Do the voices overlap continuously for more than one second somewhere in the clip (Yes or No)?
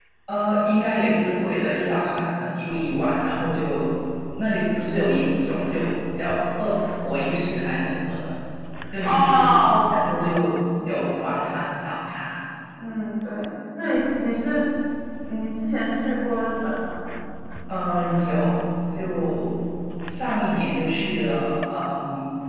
Yes